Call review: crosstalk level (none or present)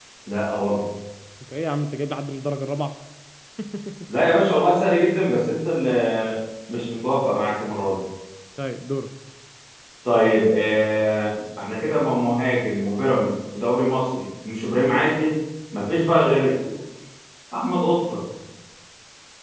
none